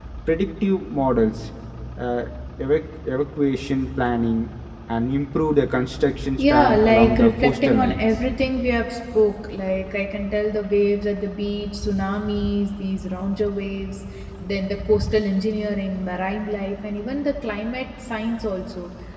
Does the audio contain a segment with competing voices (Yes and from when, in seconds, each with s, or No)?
Yes, from 6.4 s